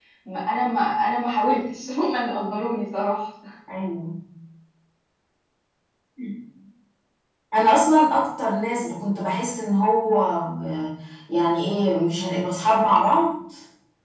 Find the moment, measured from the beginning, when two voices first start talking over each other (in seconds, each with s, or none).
none